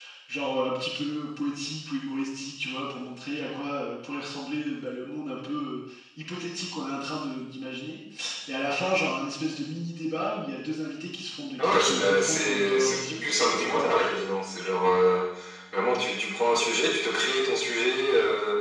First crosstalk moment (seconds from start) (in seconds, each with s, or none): 11.6 s